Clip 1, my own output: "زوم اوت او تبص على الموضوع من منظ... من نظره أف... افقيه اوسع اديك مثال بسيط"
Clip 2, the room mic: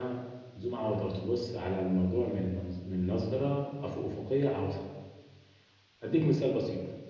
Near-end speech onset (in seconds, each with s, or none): none